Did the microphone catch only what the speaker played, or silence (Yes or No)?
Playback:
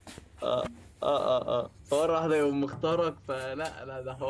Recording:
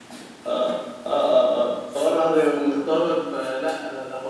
Yes